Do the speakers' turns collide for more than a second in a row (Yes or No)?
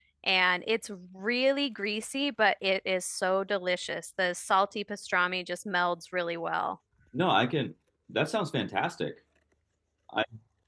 No